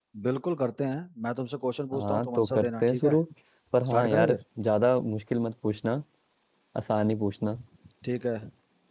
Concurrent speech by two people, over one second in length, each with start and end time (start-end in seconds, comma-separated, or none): 1.9-3.1